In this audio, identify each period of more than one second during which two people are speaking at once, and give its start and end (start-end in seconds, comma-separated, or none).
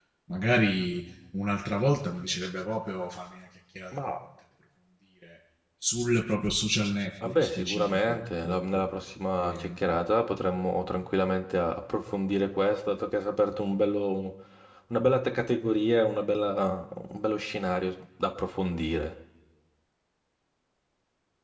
7.2-8.8